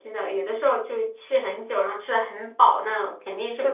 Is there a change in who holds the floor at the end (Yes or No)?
Yes